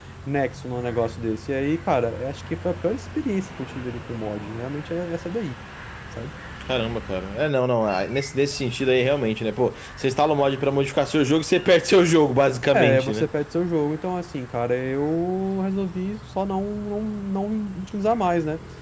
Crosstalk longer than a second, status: none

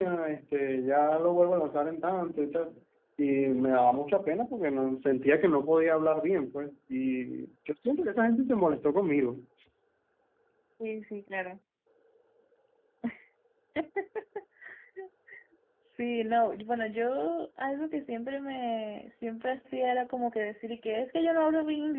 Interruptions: none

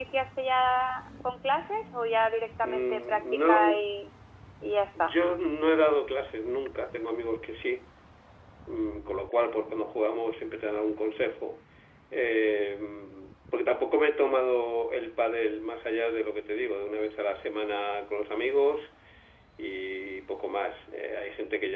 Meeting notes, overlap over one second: present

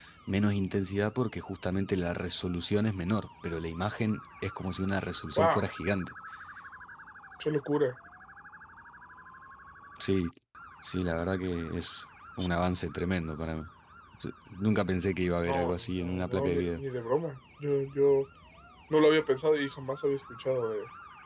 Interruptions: present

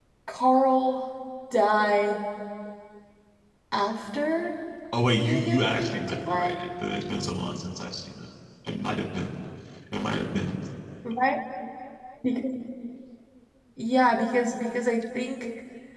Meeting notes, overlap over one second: present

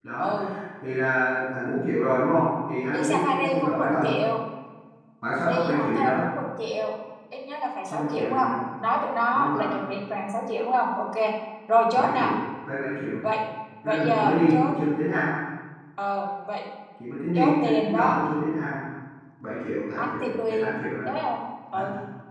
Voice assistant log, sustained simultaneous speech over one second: present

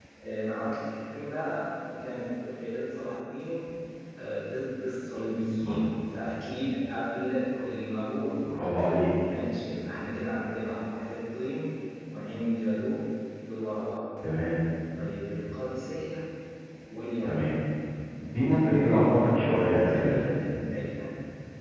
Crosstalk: present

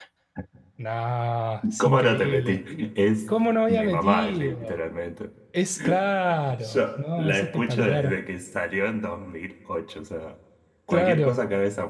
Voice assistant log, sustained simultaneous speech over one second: present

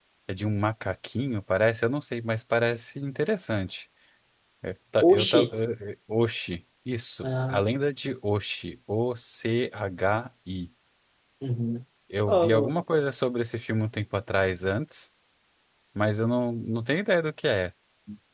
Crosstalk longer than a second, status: none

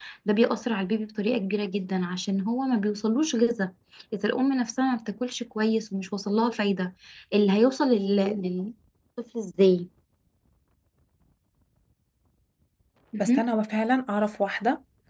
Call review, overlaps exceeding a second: none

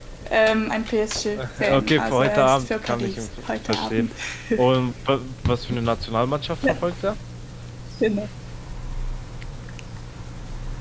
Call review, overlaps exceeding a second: present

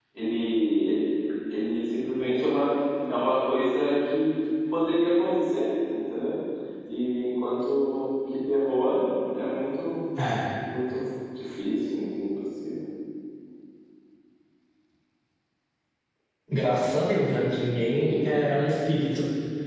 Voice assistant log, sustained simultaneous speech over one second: none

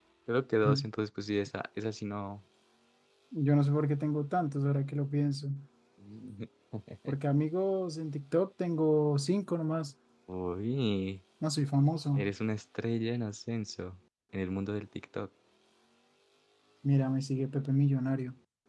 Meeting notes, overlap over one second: none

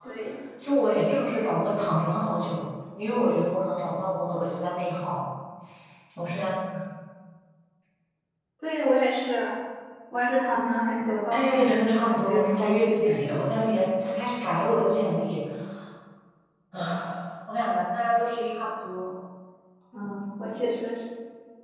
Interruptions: present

